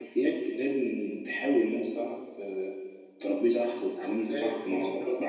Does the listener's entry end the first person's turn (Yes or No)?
Yes